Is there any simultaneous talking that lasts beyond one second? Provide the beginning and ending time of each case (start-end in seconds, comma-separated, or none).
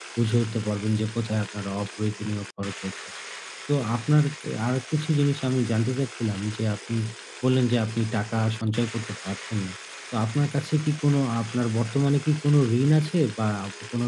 none